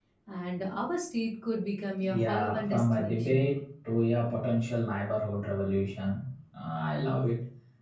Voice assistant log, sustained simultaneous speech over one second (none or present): present